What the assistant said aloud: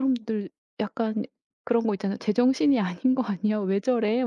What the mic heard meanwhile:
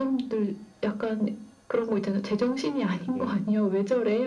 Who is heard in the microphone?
both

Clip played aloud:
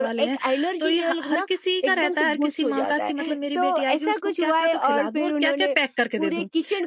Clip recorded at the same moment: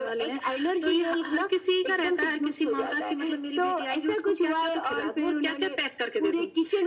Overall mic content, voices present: echo only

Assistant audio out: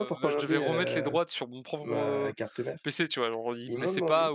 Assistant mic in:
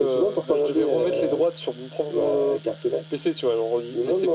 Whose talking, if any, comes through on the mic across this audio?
echo only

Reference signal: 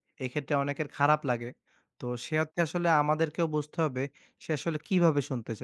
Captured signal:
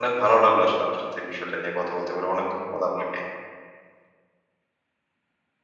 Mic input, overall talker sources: user only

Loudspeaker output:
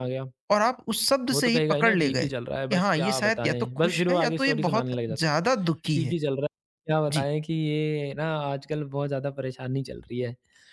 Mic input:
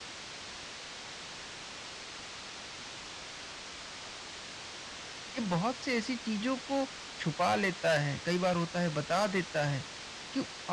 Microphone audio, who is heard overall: user only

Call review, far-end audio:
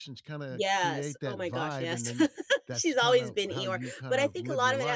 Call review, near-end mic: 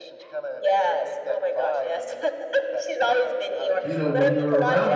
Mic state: both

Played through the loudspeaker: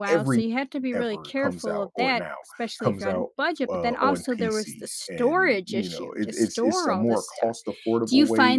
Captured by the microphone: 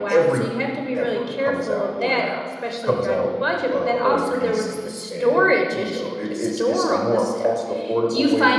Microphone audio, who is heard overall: echo only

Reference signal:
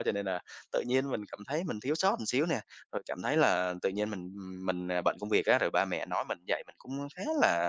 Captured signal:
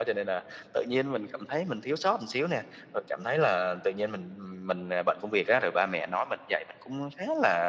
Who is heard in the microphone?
echo only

